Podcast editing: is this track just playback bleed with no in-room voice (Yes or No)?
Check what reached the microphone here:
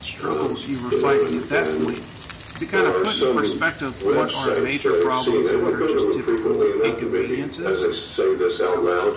No